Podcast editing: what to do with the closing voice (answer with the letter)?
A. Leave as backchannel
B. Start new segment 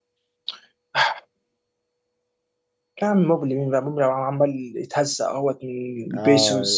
B